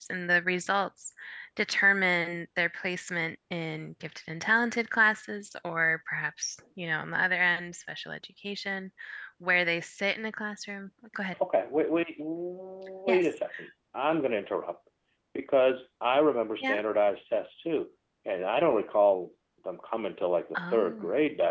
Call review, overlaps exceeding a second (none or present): none